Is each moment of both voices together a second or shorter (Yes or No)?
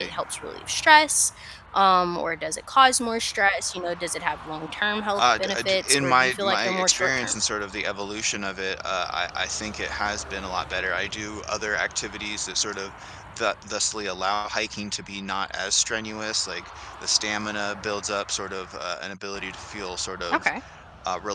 No